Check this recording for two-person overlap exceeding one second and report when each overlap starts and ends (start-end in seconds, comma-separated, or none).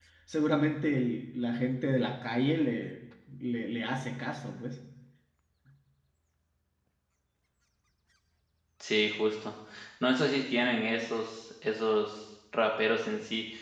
none